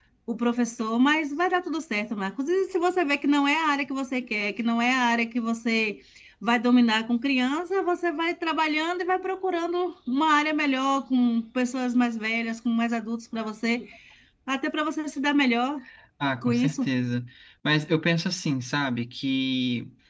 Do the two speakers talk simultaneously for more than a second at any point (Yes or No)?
No